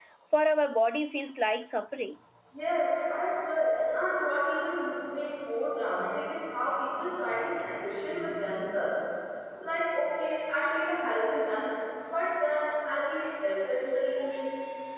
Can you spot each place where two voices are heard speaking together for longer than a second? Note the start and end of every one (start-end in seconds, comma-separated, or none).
none